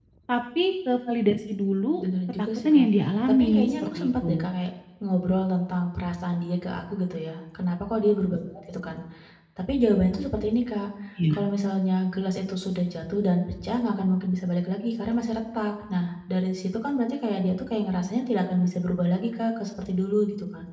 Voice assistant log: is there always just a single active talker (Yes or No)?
No